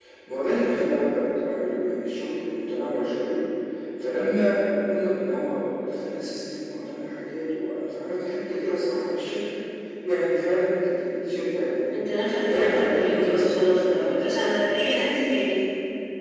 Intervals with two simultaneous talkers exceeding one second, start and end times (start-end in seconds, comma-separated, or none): 12.5-15.0